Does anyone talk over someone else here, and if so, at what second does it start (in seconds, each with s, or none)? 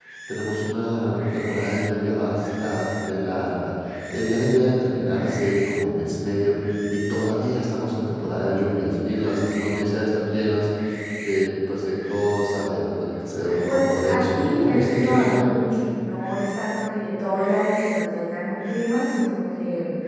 13.7 s